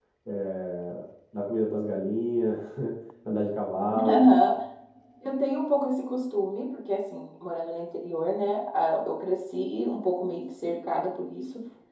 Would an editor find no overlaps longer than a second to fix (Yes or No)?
Yes